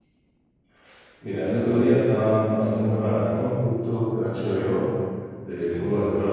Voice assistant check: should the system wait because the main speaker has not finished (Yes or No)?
Yes